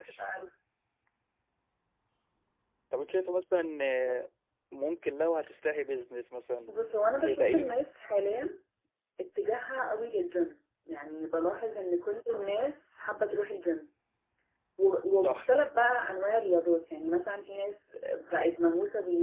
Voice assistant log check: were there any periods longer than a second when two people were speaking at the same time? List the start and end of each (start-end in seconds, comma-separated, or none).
none